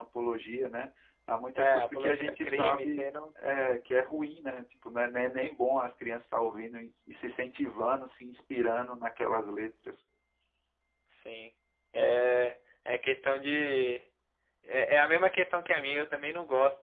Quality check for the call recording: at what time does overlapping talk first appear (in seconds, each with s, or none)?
1.6 s